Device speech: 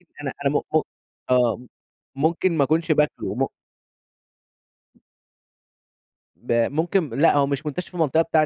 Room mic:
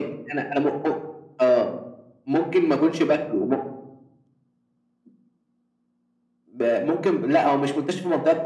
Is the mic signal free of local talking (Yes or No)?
Yes